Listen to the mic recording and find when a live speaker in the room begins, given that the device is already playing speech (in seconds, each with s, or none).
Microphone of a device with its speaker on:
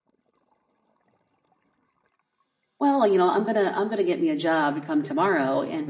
2.8 s